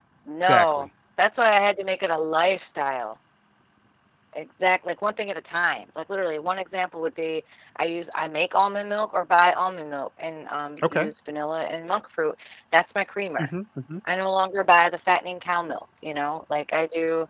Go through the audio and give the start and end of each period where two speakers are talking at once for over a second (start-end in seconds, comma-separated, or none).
none